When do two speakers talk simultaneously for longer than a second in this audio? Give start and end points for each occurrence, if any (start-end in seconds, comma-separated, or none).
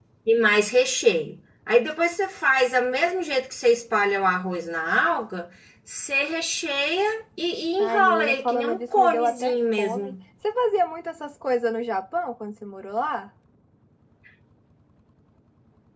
7.8-10.1